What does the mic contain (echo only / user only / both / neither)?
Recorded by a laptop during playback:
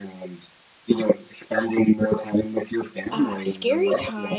both